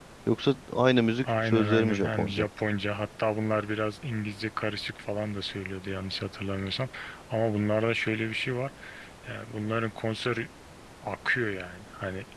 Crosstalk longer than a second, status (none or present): present